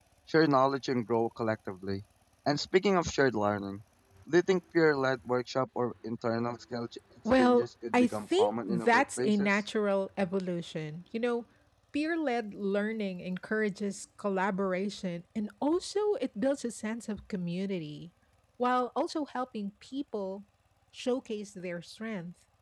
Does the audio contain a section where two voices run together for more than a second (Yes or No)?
Yes